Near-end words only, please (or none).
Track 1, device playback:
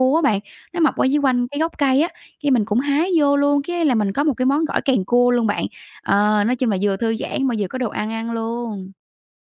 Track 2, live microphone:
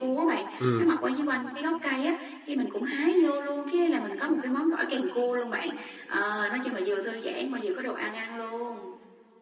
Ừm.